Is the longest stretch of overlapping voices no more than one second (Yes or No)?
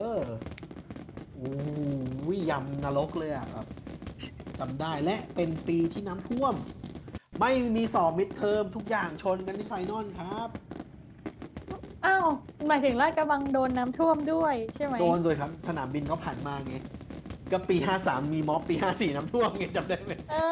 Yes